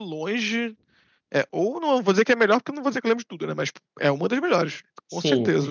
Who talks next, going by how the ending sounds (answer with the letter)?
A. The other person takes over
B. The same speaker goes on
A